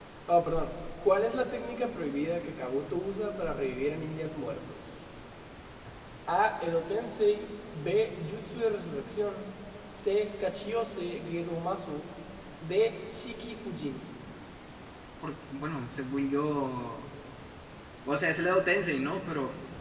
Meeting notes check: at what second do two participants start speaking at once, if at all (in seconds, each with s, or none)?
none